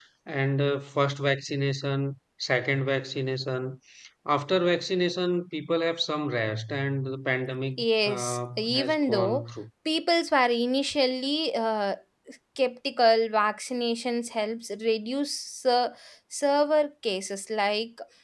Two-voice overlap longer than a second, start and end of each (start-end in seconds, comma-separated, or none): 7.8-9.4